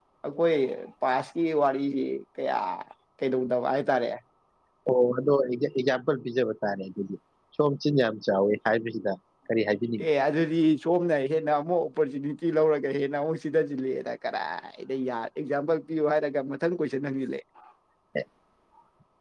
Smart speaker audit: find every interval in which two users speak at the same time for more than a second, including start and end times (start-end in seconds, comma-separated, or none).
none